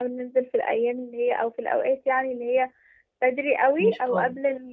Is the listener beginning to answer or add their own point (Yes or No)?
No